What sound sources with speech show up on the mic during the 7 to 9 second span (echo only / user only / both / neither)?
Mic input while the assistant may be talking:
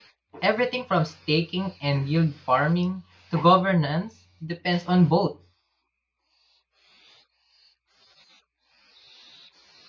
neither